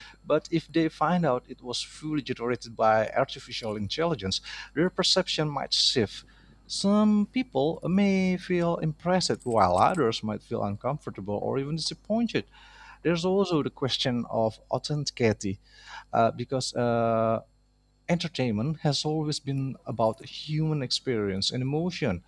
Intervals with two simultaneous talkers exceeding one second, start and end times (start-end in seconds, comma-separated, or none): none